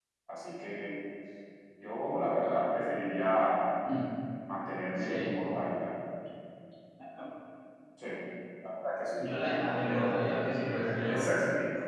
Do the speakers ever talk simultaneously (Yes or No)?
Yes